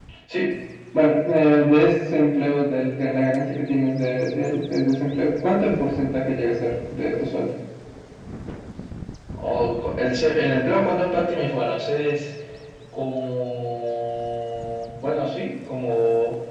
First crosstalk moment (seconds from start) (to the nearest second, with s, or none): none